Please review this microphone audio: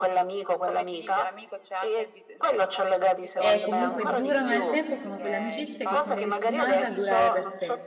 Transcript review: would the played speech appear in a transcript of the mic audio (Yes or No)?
Yes